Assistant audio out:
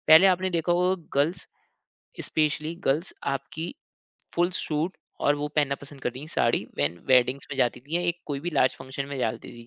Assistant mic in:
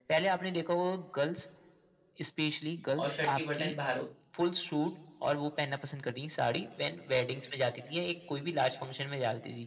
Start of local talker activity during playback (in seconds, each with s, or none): 3.0 s